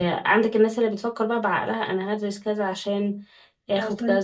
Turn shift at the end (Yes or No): Yes